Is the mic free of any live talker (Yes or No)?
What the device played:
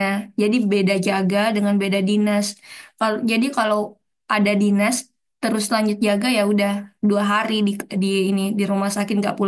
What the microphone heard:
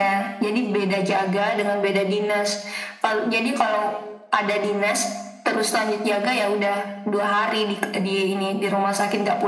Yes